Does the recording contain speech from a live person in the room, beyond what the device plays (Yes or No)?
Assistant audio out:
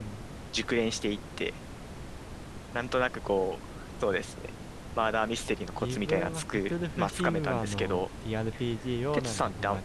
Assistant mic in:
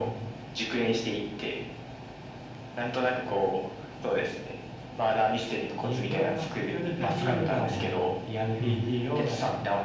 Yes